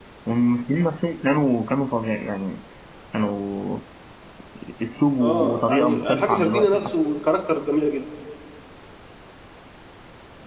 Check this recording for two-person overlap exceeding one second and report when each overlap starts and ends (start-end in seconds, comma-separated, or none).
5.2-6.8